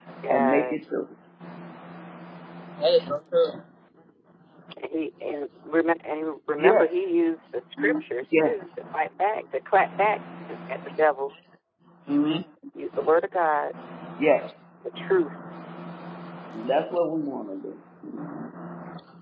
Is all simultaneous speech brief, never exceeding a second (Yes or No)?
Yes